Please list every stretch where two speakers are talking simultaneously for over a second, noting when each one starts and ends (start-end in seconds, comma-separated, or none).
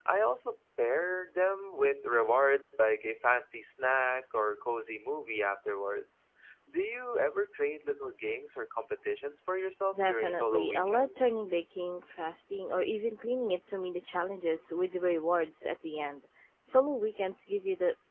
9.9-11.3